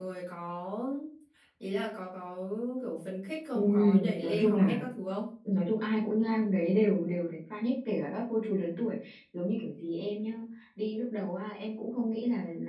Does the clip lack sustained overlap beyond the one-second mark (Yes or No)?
No